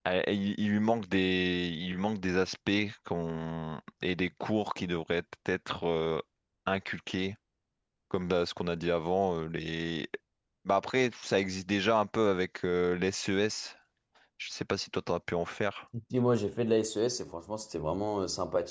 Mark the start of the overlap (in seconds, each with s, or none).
none